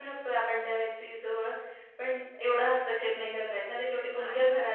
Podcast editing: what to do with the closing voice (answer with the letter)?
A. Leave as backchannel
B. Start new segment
A